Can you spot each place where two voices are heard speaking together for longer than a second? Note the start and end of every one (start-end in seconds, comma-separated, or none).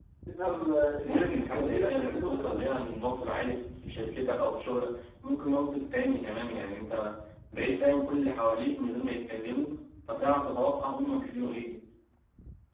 1.0-2.6